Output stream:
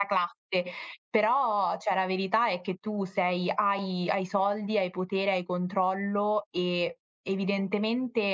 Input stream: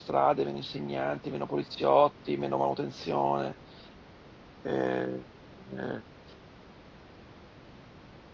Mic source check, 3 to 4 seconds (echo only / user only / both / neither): user only